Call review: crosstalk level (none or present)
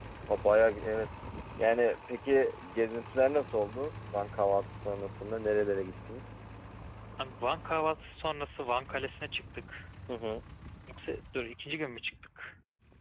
none